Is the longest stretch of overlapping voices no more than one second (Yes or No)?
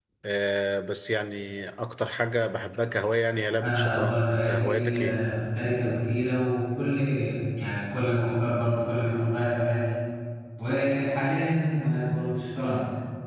No